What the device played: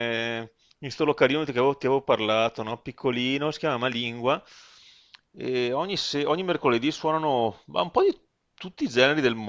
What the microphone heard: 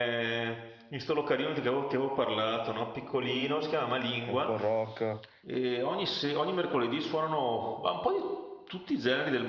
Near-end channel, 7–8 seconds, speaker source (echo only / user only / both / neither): echo only